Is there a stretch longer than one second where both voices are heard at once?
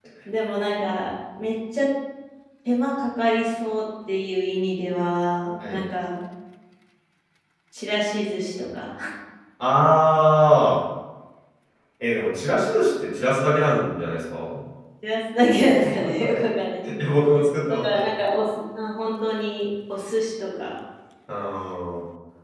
No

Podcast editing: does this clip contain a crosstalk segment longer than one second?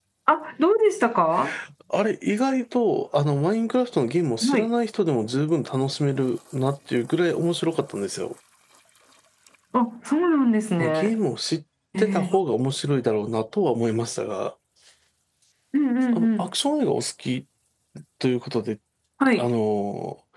No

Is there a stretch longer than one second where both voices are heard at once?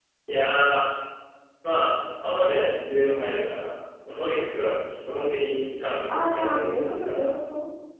Yes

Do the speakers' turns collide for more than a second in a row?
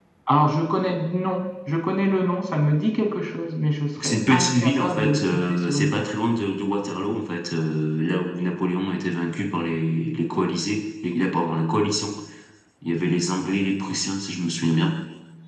Yes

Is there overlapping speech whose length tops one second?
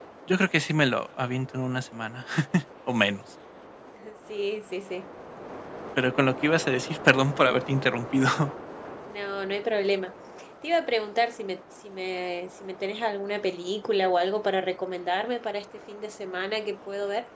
No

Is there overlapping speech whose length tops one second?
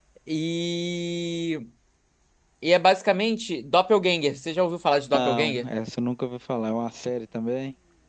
No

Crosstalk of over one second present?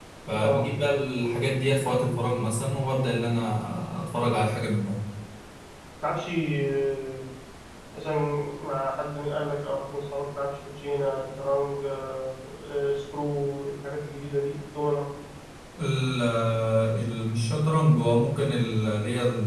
No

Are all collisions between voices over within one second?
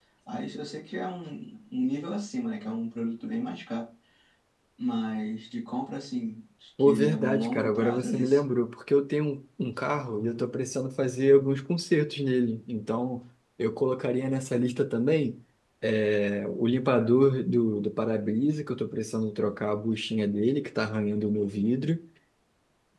No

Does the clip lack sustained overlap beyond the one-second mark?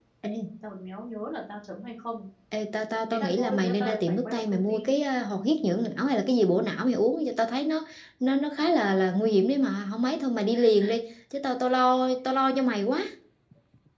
No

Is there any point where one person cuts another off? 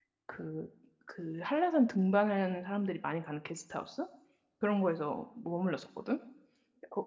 No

